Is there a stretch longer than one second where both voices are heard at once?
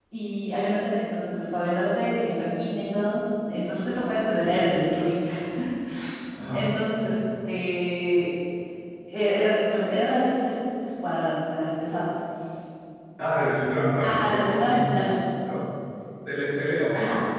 Yes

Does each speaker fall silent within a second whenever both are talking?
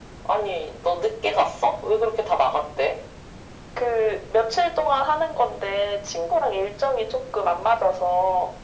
Yes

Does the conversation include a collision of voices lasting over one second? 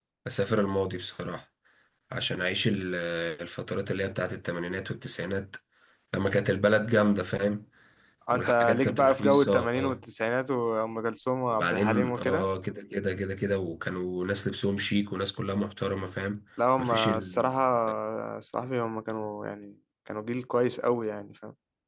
Yes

